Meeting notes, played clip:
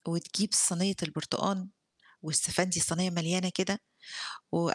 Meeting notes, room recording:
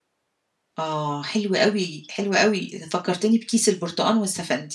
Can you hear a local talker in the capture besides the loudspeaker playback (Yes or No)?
Yes